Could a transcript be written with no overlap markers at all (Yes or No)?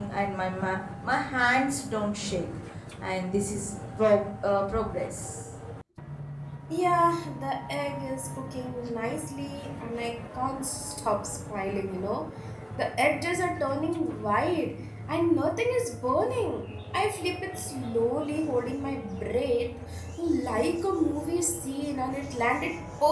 Yes